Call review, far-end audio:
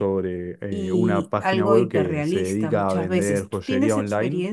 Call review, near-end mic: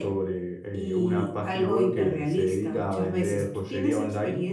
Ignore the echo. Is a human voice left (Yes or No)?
No